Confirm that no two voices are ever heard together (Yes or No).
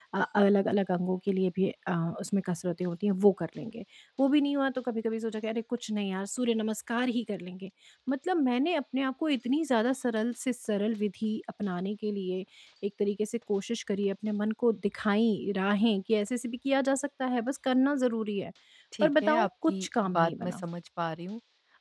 No